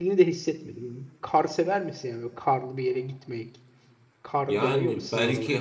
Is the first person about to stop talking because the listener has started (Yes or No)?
Yes